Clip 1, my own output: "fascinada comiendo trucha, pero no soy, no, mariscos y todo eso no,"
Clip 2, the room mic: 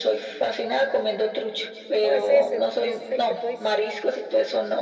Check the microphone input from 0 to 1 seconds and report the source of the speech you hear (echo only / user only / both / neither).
echo only